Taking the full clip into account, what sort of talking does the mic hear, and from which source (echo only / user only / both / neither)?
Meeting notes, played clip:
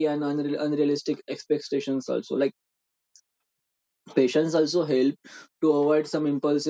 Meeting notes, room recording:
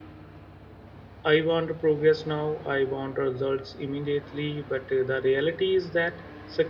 user only